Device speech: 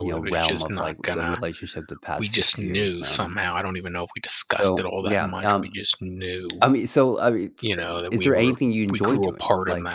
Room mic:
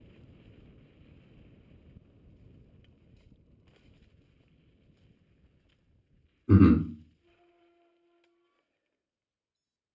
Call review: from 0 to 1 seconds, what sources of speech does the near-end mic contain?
neither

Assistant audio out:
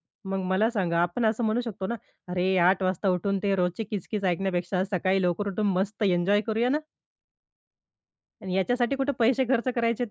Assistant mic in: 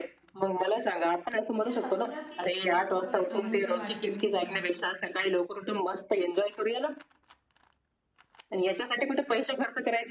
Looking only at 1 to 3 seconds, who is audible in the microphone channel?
both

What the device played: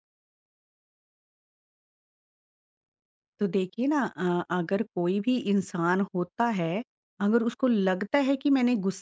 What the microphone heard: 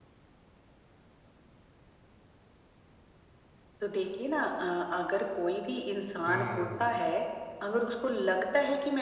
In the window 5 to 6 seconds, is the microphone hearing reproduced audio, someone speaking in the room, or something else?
echo only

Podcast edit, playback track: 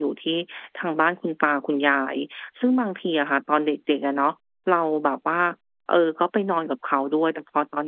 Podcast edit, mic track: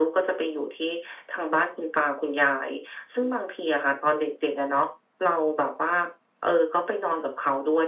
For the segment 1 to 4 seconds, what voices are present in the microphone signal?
echo only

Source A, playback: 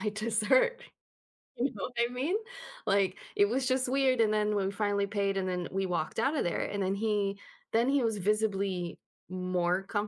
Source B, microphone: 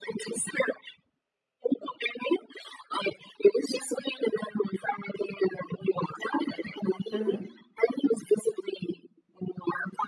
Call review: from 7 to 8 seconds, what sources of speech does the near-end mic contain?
both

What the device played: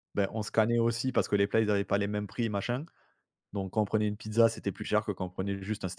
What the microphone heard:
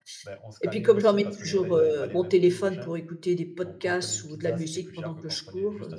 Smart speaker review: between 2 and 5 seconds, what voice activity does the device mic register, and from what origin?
both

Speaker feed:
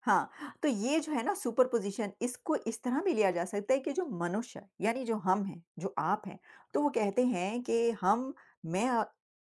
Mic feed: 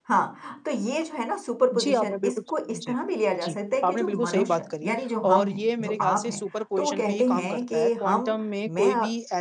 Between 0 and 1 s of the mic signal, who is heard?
echo only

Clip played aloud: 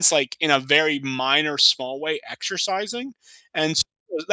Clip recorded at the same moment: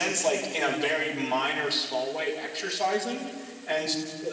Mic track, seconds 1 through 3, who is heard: echo only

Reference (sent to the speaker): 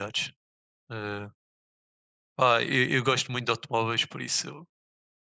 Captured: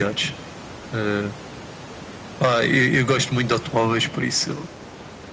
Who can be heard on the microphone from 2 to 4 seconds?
echo only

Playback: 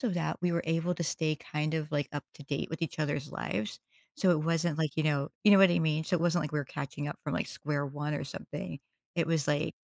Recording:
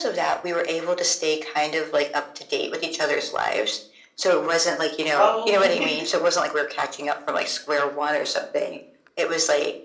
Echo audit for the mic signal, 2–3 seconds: echo only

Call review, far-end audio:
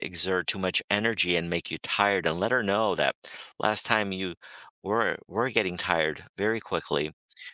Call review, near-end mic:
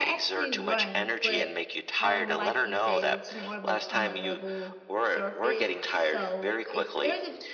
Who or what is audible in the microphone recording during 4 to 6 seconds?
both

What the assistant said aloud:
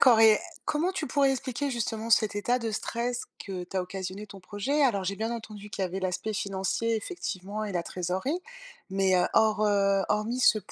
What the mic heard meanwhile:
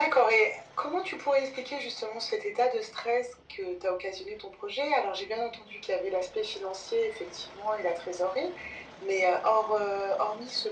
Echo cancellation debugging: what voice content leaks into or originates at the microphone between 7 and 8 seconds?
echo only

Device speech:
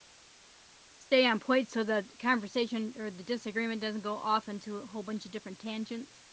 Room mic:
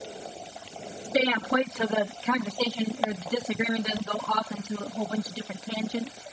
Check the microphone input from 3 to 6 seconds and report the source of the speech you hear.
echo only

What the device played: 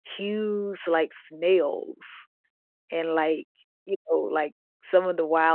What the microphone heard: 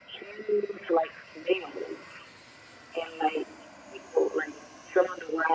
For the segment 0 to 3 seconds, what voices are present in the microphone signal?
echo only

